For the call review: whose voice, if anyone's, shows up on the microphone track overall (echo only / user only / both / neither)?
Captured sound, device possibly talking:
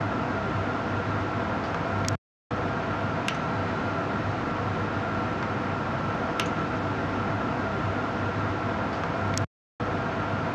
neither